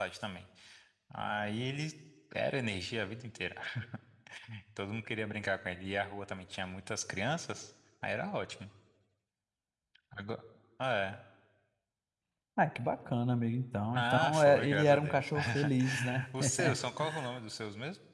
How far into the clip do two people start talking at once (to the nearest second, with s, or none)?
14 s